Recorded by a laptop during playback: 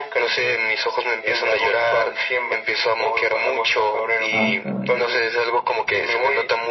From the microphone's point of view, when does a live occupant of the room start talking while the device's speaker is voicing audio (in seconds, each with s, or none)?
4.3 s